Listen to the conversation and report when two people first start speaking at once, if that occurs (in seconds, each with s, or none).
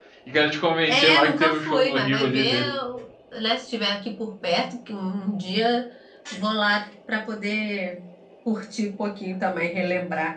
0.9 s